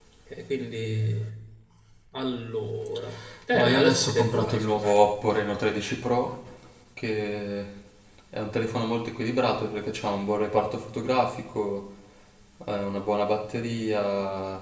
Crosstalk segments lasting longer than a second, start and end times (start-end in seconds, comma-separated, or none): 3.5-4.9